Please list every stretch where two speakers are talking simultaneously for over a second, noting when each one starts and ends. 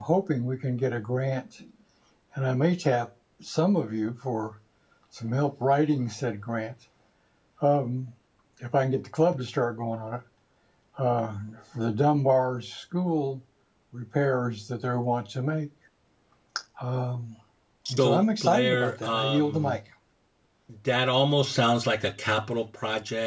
17.9-19.7

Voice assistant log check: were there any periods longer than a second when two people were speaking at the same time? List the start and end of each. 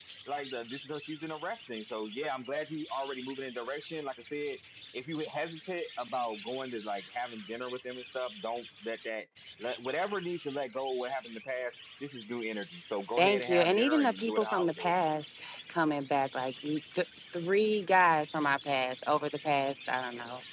13.2-15.0

